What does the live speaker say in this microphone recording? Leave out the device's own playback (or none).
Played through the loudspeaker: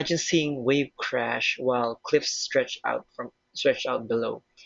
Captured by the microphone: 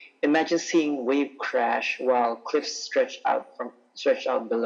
none